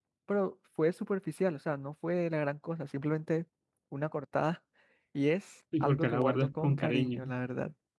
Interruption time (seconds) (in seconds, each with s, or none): 5.8 s